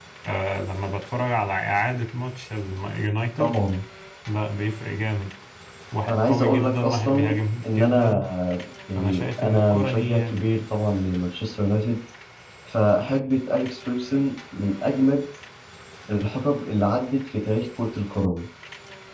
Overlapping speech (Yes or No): Yes